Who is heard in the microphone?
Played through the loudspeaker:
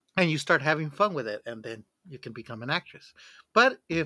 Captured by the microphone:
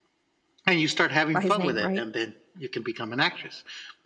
both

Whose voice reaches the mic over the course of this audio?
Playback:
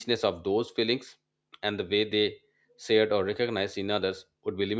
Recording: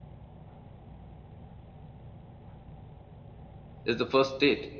user only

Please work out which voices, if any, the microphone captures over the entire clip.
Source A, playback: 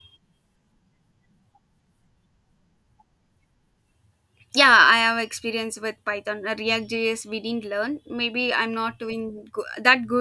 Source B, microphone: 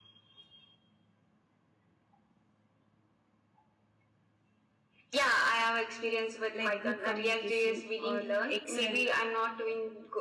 both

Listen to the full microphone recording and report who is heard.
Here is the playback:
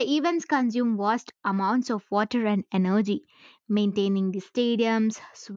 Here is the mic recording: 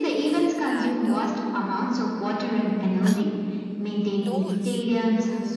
both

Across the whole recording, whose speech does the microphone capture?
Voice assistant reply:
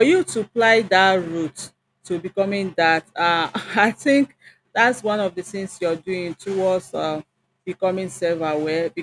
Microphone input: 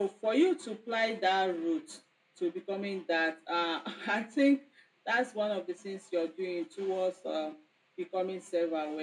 echo only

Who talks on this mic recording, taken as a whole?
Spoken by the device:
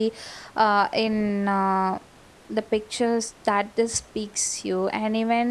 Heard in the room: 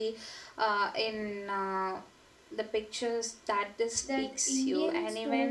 both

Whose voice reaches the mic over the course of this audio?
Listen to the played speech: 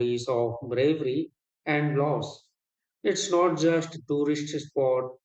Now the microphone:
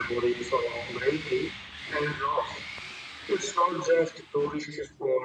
echo only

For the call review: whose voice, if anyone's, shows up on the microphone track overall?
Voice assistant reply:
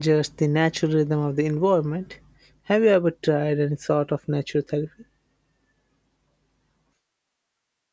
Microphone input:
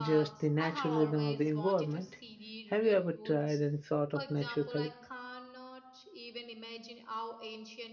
both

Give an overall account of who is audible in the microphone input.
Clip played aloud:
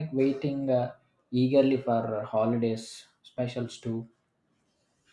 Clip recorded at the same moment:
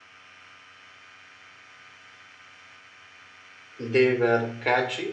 user only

